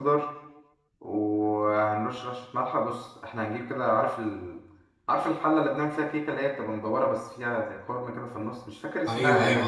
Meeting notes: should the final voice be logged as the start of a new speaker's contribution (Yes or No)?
Yes